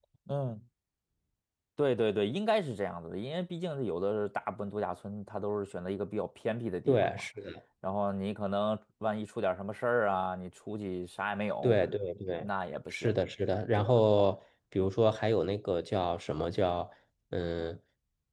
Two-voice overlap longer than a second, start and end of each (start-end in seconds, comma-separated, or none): none